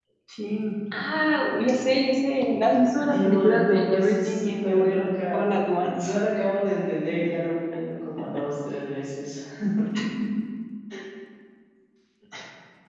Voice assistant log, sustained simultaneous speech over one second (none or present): present